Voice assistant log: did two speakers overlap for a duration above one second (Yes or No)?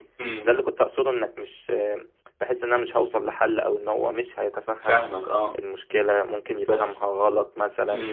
No